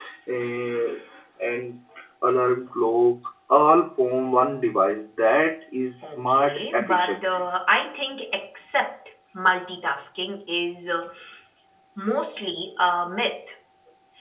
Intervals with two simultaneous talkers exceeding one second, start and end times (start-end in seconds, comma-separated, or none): 6.0-7.4